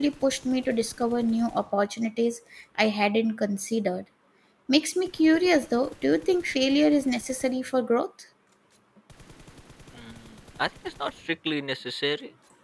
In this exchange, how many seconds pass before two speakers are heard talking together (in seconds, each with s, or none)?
none